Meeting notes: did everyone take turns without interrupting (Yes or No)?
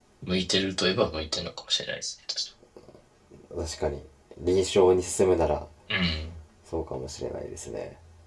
Yes